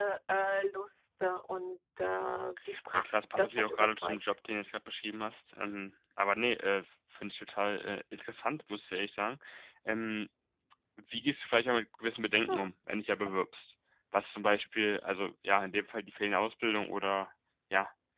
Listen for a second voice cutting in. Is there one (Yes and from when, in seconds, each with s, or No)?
Yes, from 3.0 s